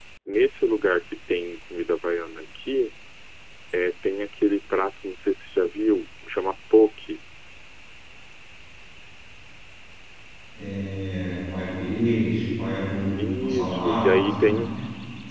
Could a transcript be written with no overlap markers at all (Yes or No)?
No